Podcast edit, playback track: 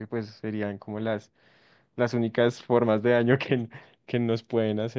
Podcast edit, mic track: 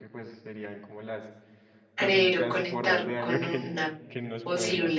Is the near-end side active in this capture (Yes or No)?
Yes